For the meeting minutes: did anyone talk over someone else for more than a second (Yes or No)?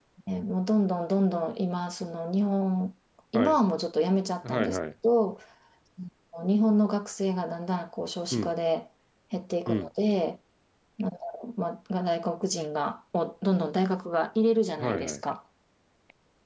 No